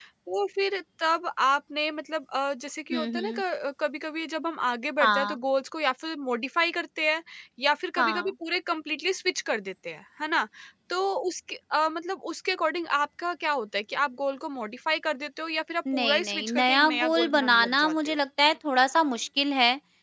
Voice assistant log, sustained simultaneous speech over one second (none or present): present